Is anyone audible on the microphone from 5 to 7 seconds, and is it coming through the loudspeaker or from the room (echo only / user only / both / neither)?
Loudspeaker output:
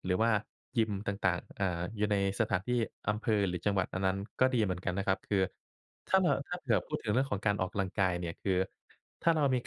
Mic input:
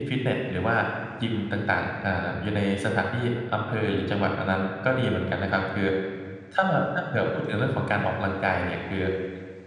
echo only